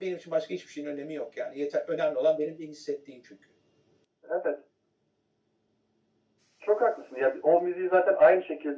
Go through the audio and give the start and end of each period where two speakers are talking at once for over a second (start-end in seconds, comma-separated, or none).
none